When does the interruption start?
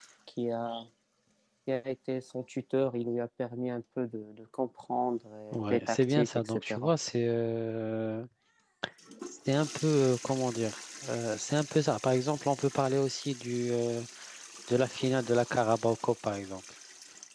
5.5 s

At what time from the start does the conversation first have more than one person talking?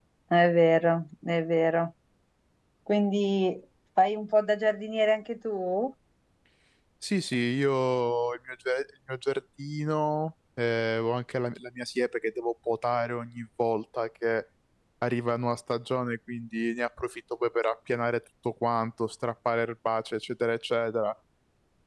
none

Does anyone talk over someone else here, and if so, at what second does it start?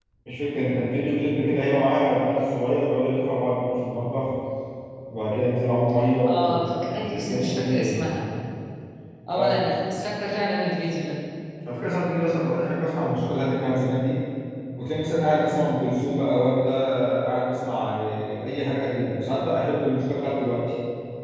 6.3 s

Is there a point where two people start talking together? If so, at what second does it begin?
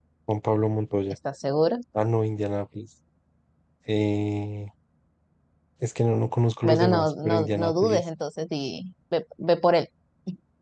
6.6 s

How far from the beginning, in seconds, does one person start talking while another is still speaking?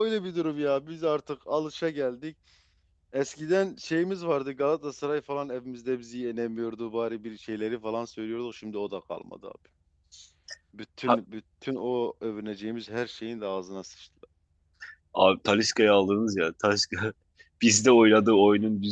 none

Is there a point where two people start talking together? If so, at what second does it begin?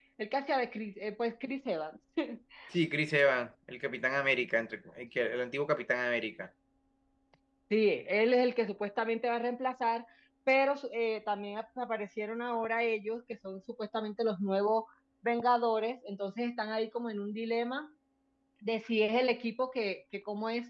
none

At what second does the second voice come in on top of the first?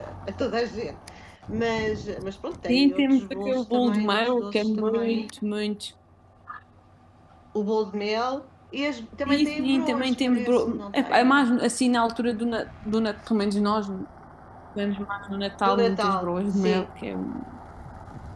2.7 s

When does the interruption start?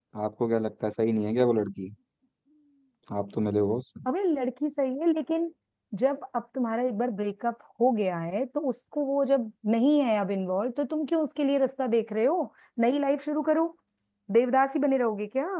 none

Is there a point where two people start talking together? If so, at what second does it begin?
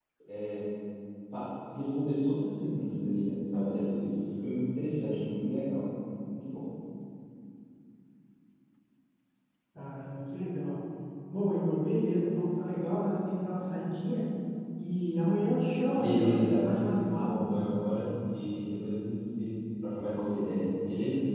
16.0 s

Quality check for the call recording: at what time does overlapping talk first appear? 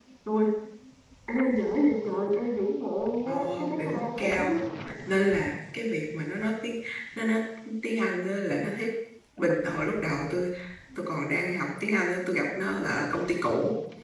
3.3 s

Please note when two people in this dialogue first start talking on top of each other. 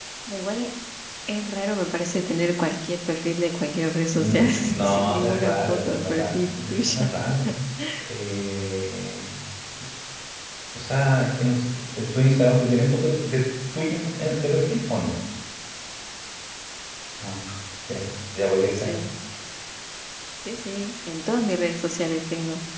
4.1 s

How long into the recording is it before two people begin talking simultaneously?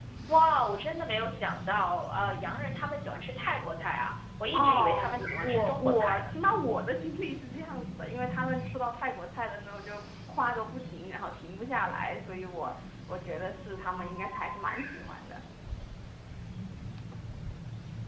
4.5 s

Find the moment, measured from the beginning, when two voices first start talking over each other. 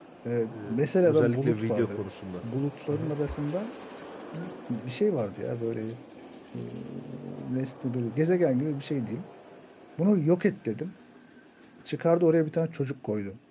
0.5 s

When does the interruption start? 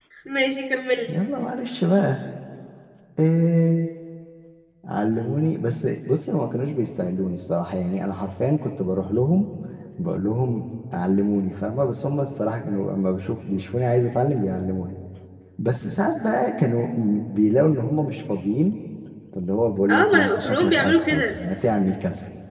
19.9 s

